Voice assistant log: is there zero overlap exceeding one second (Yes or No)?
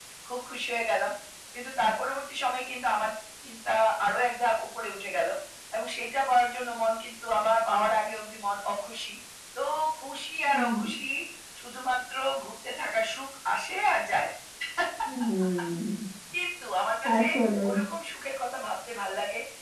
Yes